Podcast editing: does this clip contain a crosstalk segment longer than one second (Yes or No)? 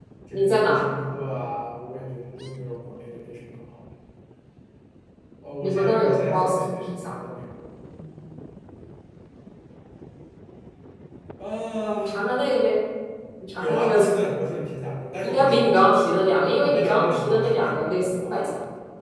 Yes